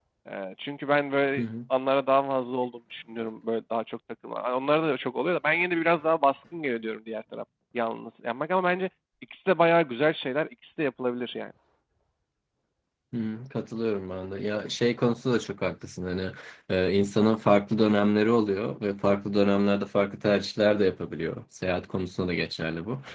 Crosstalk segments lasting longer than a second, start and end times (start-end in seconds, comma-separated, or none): none